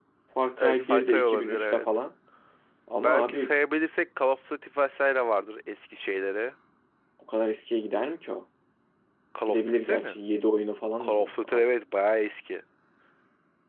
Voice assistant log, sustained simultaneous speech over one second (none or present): present